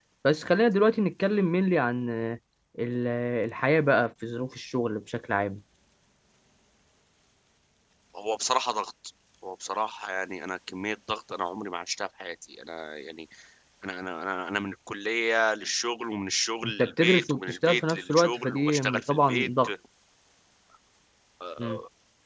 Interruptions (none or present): present